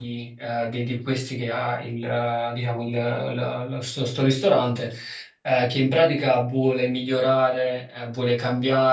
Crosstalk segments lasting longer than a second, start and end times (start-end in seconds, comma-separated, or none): none